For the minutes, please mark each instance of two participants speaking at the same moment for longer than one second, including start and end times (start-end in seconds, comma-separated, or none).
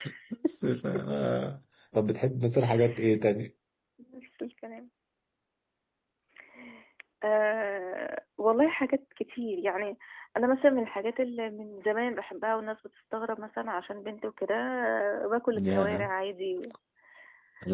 none